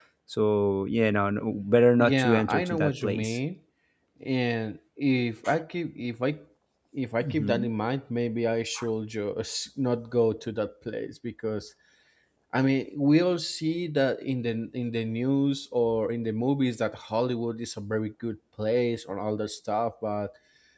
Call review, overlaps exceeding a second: present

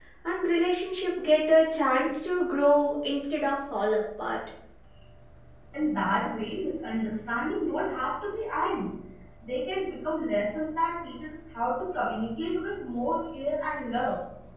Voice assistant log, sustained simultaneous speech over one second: none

